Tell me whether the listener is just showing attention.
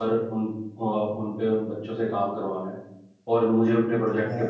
Yes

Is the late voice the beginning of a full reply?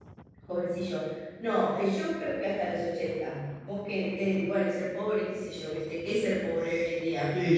Yes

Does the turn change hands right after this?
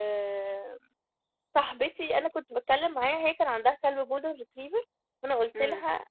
No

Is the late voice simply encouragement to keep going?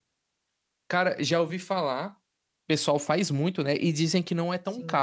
No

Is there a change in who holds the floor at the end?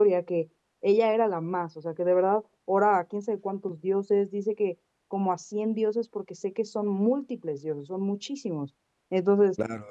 Yes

